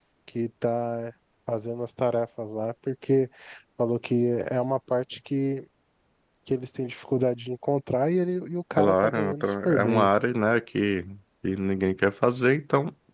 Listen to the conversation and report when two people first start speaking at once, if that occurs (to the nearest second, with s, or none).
9 s